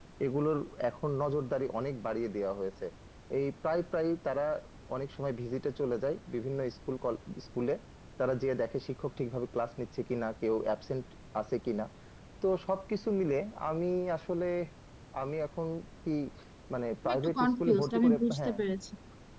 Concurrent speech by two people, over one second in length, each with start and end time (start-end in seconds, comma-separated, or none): 17.0-18.6